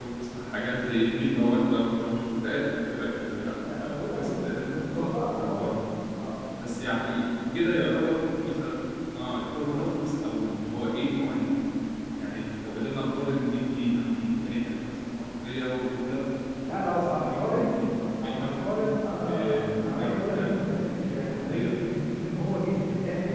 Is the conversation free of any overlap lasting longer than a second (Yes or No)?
No